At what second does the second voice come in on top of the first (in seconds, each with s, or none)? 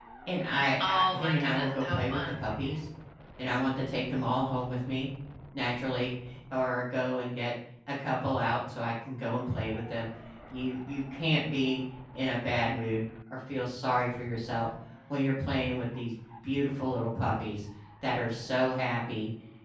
0.9 s